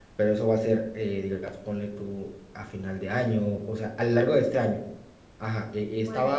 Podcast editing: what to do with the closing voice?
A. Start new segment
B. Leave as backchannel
B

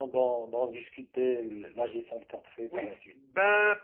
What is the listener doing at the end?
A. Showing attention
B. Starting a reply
B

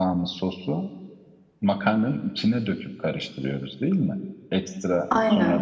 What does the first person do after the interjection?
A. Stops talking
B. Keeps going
B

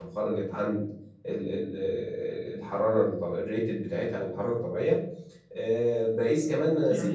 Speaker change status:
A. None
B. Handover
B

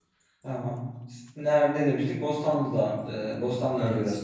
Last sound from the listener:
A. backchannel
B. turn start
A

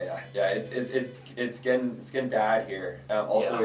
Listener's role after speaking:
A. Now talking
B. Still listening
B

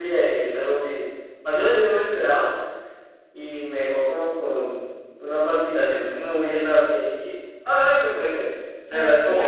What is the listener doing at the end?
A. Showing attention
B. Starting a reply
A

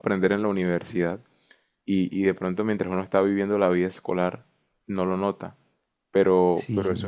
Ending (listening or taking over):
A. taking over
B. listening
A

